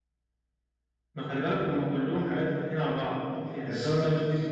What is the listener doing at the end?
listening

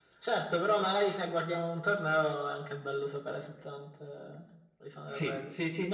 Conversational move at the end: taking over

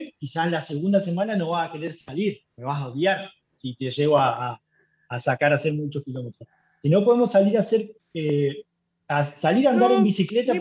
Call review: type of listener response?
taking over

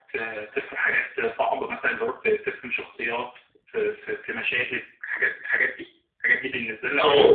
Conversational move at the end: taking over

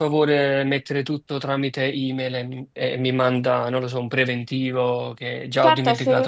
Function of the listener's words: taking over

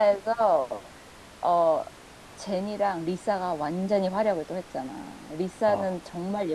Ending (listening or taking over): listening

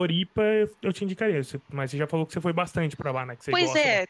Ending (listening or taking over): taking over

